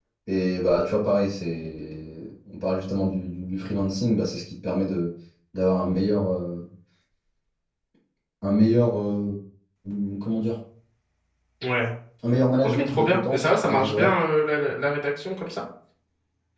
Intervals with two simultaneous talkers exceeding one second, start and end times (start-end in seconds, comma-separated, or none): 12.6-14.1